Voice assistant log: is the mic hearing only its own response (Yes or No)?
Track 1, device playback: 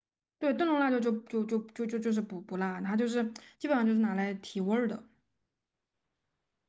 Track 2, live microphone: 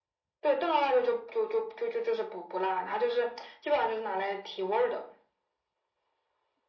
Yes